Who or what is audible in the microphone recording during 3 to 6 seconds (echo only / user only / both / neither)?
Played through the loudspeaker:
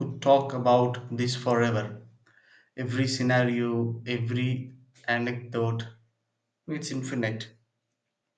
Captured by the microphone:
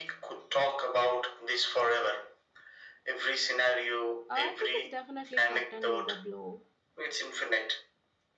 both